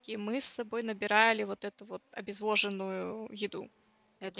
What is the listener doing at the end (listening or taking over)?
taking over